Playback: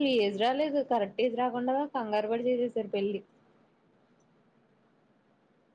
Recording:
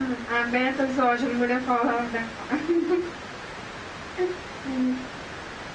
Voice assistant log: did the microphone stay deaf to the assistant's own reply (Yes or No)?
Yes